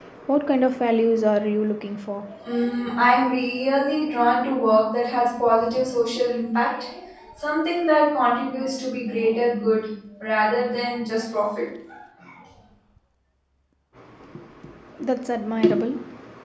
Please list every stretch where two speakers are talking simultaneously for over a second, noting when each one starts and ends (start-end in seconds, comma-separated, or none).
none